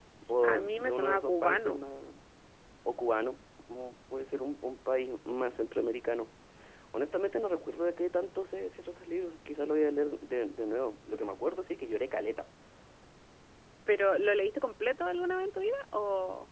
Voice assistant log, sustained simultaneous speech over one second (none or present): present